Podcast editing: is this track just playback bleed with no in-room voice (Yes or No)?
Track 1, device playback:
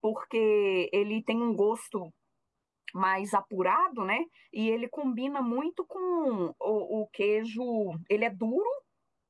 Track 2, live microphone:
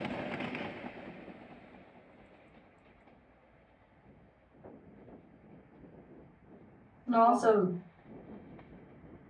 No